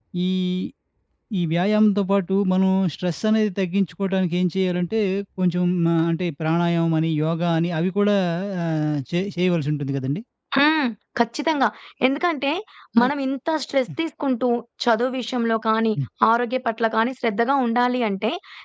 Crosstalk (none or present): none